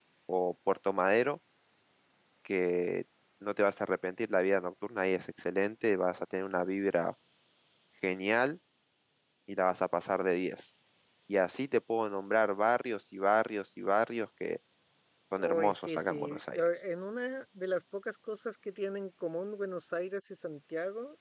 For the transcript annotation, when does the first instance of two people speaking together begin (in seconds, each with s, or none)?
15.4 s